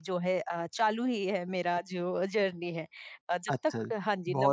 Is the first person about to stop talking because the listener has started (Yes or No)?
Yes